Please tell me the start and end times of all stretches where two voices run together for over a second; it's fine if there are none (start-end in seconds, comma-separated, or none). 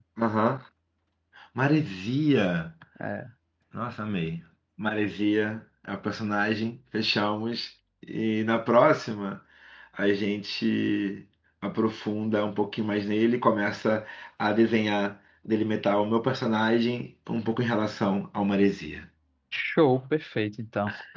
none